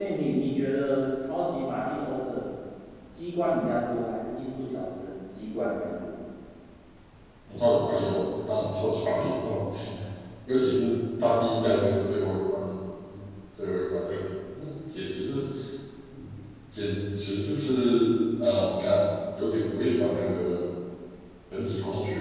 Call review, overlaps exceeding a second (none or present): none